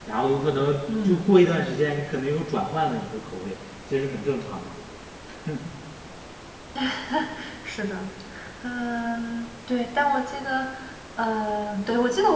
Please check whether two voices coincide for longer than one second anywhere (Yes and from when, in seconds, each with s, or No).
No